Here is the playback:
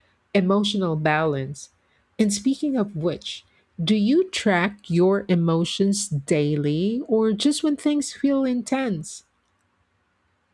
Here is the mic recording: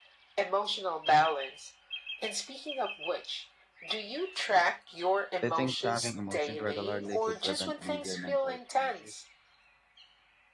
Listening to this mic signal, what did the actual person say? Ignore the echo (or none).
They think tracking emotions regularly could prevent bigger mental issues